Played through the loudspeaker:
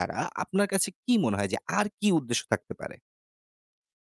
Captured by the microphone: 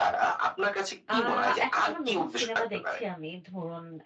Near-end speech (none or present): present